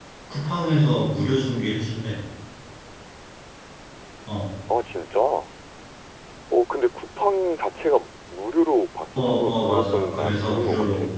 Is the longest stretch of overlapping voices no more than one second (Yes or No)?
No